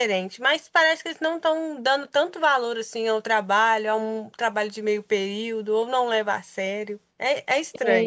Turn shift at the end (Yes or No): Yes